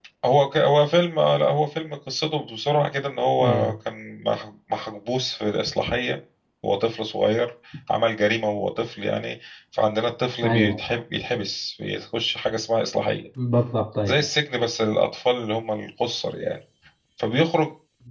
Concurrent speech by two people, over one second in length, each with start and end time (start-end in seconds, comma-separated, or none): none